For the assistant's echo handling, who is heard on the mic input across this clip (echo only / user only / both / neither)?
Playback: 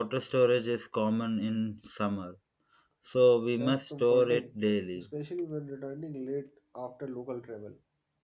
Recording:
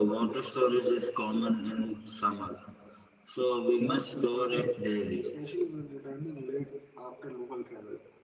echo only